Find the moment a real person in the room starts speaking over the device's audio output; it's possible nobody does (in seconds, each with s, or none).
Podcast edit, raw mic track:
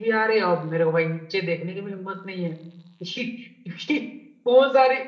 none